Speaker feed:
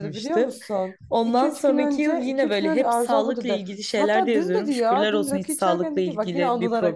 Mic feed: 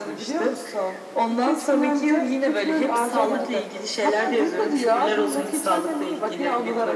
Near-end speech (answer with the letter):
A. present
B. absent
A